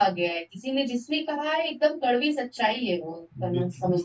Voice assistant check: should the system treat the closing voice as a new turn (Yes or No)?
Yes